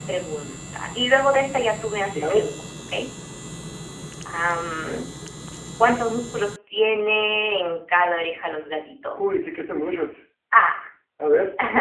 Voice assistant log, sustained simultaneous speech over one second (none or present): none